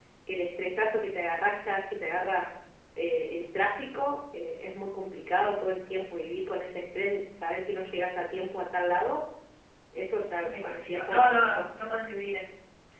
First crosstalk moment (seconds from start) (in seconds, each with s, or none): 10.4 s